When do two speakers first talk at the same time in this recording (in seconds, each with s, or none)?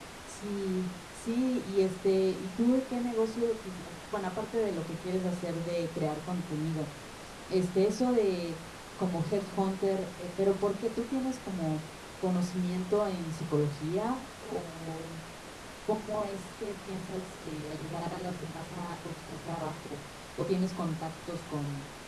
none